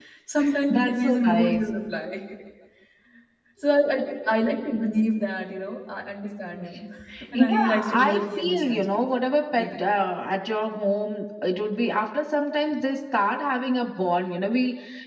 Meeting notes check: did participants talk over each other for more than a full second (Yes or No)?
Yes